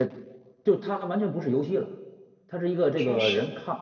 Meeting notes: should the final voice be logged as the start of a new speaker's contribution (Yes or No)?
No